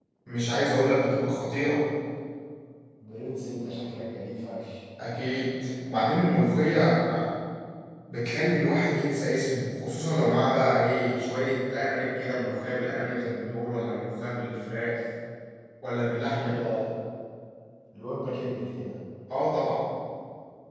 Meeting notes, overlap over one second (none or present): none